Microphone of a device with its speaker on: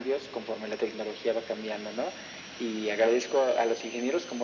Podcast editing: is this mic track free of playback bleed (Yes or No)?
No